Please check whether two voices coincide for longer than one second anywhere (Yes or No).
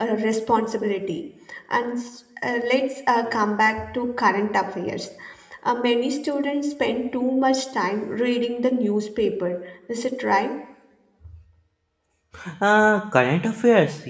No